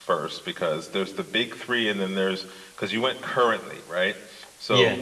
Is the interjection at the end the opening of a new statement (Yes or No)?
No